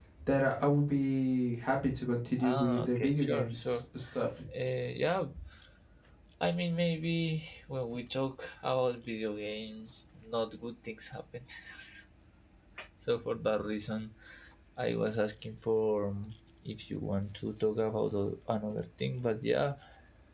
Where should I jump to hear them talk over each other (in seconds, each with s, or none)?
2.4 s